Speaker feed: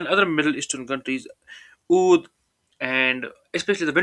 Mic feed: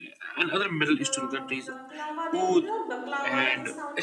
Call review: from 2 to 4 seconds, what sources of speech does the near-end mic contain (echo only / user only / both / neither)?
both